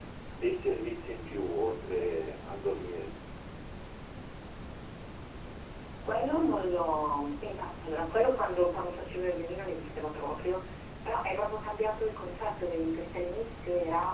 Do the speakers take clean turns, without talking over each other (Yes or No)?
Yes